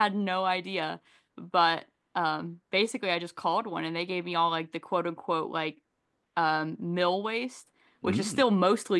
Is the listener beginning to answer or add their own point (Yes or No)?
No